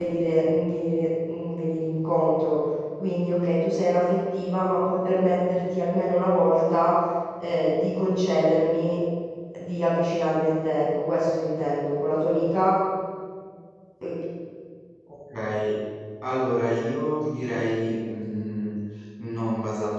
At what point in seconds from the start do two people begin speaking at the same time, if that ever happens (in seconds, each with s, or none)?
none